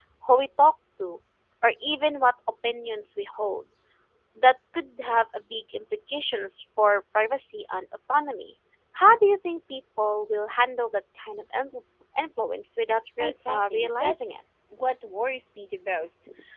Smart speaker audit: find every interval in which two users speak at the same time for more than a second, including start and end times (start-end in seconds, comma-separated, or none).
13.2-14.4